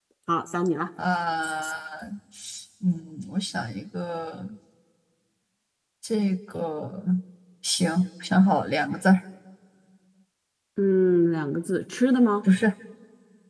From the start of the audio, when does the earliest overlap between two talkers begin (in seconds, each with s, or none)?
none